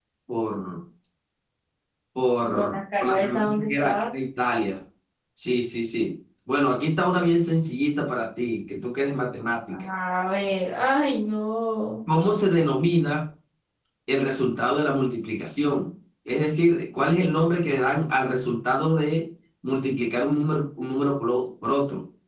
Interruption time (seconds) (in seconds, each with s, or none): 2.5 s